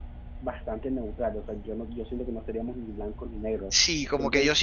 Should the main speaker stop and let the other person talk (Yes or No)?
Yes